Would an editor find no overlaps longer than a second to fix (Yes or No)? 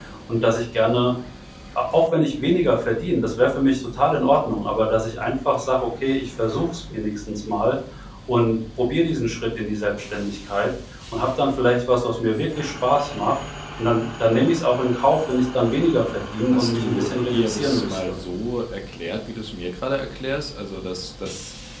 No